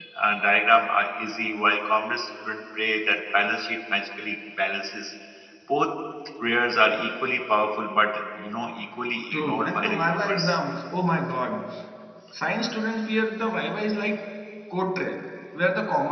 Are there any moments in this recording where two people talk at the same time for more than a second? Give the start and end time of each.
9.3-10.6

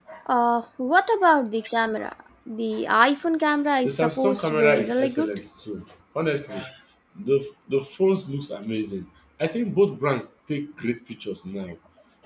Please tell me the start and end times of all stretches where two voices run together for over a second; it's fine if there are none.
3.8-5.3

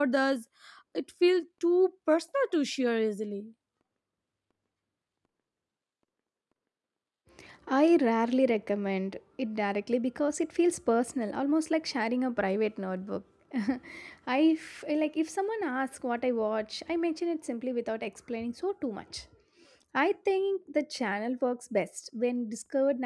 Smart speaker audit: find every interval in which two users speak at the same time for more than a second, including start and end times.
none

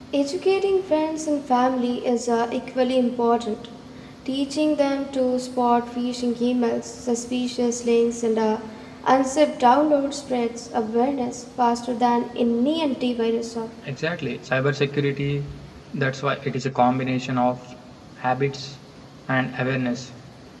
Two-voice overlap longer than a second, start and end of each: none

